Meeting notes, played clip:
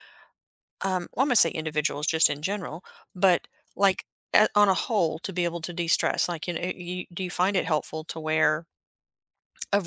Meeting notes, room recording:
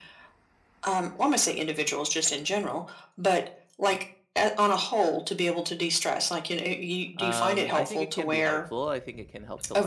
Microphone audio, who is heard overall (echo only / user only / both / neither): both